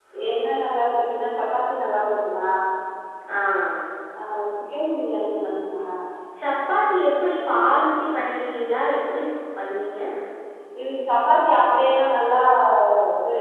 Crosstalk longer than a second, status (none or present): none